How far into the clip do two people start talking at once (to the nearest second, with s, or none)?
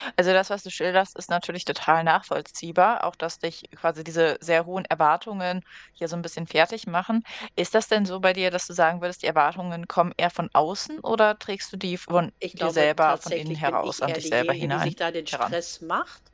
12 s